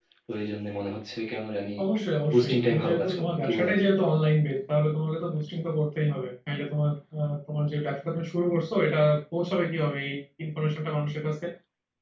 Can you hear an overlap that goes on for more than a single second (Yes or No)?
Yes